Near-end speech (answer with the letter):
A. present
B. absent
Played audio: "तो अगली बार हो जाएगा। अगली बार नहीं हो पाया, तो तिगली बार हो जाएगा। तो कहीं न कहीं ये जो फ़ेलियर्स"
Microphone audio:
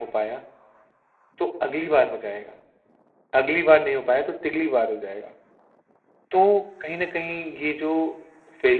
B